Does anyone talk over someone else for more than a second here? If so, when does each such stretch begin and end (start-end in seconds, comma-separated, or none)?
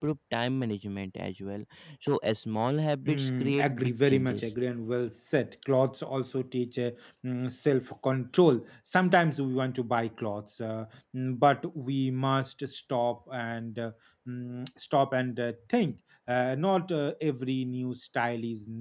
3.0-4.5